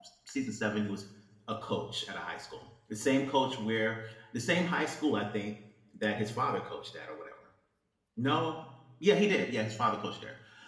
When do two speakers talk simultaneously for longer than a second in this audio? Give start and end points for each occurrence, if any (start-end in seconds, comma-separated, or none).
none